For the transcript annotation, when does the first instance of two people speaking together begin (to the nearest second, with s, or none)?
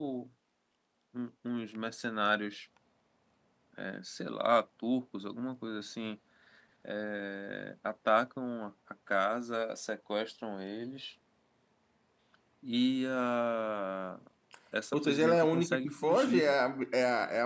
15 s